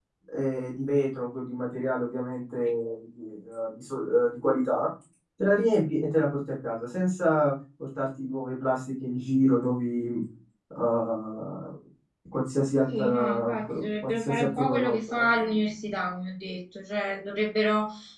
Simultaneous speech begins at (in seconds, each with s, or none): 12.9 s